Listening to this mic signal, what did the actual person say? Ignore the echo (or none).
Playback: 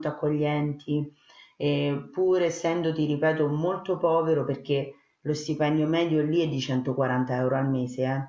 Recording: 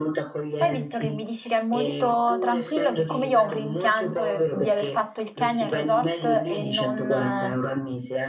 Poi visto che mi dici che è molto tranquillo, siccome io ho un rimpianto eh, di aver fatto il Kenya in resort e non, eh,